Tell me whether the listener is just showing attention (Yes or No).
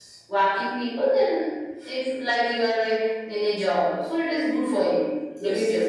No